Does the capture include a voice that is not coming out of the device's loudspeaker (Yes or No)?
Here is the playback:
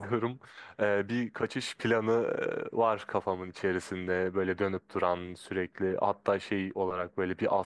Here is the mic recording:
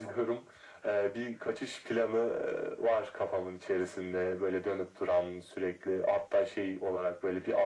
No